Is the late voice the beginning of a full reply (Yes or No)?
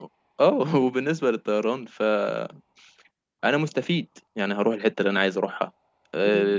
No